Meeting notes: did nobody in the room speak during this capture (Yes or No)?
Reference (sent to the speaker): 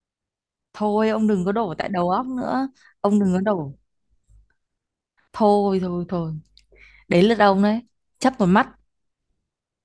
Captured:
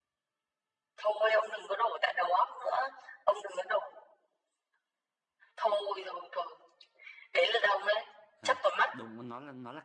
No